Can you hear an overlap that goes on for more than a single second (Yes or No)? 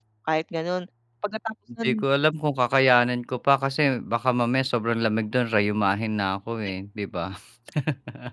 No